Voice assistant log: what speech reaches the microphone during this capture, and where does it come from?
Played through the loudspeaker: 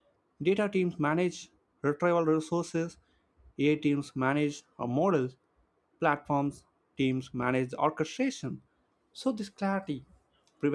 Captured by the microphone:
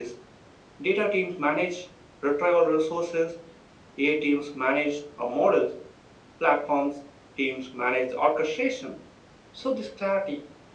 echo only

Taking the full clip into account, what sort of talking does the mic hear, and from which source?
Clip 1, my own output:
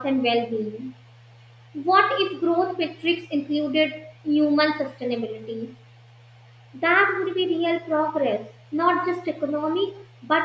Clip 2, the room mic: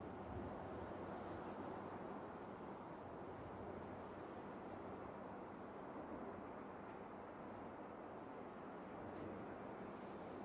neither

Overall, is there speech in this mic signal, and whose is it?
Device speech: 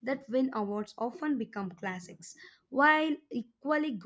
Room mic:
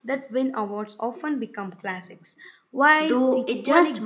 both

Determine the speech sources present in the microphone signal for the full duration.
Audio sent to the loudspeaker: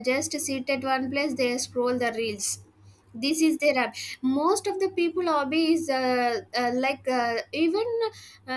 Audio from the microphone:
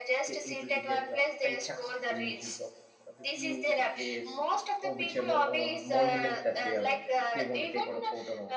both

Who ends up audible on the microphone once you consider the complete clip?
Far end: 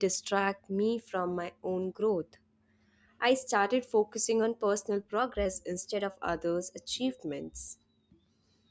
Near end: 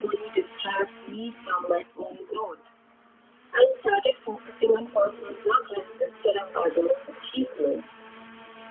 echo only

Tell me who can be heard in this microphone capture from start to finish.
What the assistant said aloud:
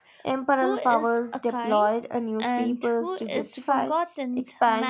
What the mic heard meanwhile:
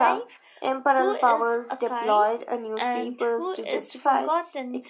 echo only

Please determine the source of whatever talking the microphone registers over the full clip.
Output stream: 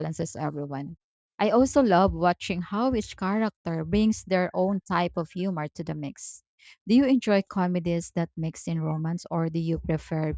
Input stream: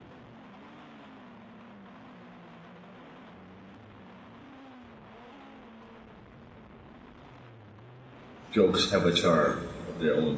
user only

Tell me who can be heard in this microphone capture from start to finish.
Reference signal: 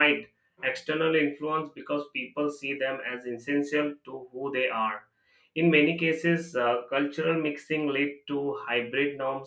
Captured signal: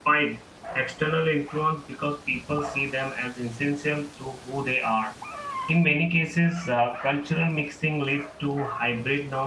echo only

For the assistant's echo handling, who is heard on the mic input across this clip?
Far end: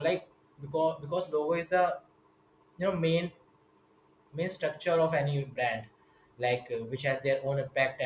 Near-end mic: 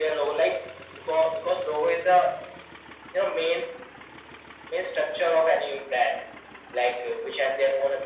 echo only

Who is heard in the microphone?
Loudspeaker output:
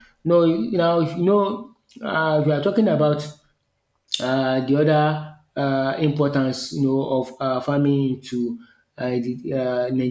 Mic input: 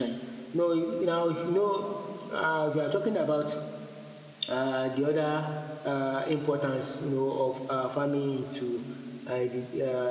echo only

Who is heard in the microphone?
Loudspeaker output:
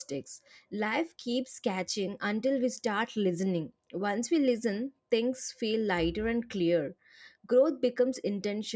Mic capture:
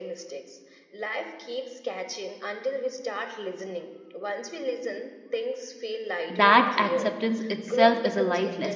both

